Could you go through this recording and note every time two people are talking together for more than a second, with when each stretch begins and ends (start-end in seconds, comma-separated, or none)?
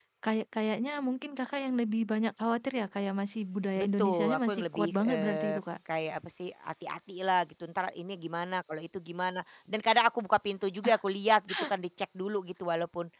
3.8-5.6